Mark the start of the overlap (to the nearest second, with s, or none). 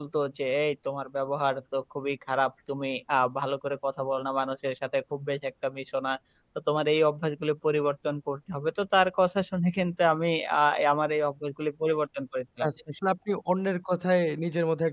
none